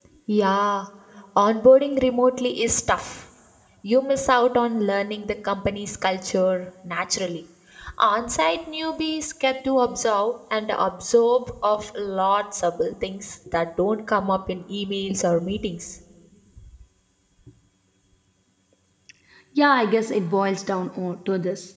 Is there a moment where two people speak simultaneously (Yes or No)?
No